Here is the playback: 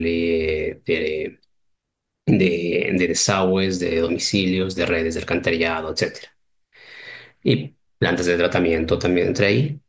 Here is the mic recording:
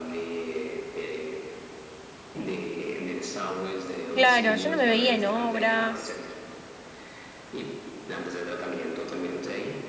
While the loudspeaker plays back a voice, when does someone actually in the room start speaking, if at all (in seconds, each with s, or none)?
4.1 s